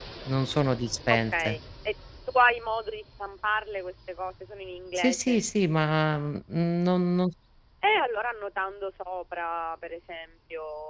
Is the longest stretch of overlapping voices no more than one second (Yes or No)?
Yes